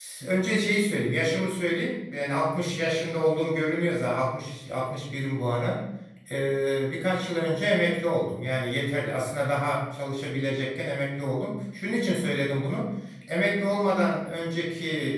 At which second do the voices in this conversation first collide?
none

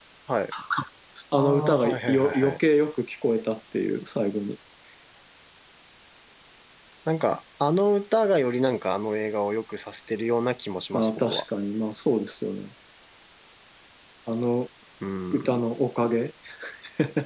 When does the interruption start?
1.3 s

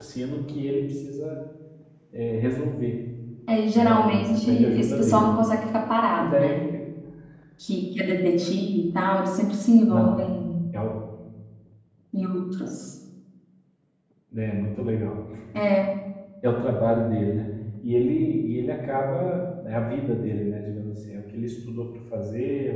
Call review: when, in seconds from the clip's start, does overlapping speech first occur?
3.7 s

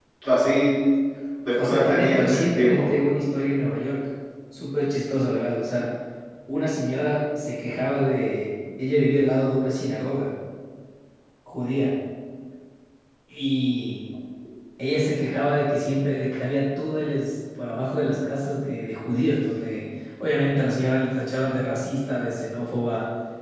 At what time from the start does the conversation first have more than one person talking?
1.6 s

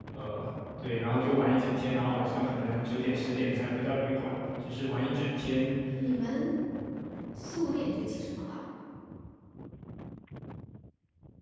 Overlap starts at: none

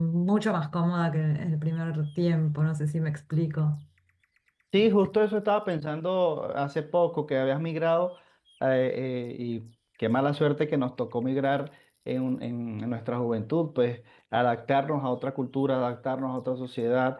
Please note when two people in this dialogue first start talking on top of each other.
none

